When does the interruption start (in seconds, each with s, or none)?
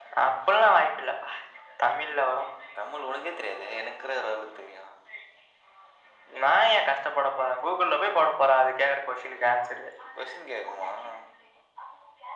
none